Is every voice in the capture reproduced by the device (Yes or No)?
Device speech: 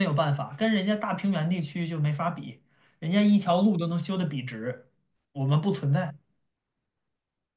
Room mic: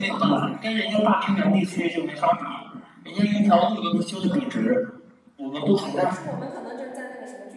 No